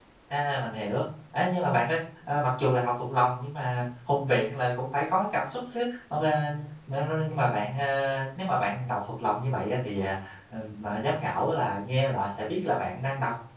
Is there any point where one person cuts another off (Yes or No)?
No